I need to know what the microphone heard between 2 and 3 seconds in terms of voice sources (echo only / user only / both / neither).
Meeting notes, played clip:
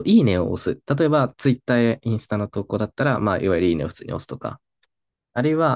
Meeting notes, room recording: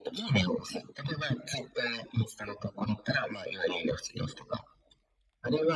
echo only